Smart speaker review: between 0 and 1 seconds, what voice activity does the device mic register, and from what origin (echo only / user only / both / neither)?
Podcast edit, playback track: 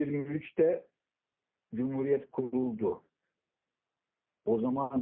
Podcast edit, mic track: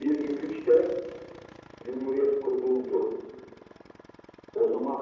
echo only